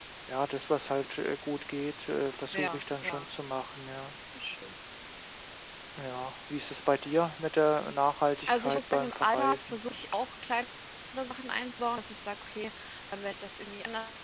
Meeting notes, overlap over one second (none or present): present